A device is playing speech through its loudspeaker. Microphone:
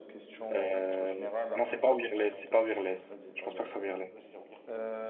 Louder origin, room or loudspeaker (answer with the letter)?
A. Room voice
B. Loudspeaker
A